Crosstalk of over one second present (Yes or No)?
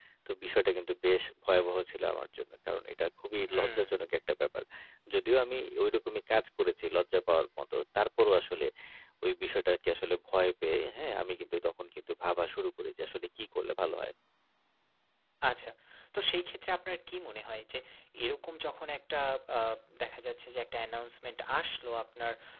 No